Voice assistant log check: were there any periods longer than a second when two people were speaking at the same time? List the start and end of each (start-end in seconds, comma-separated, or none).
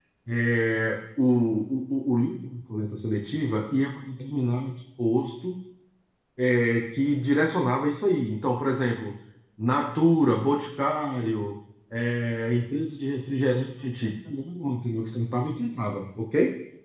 none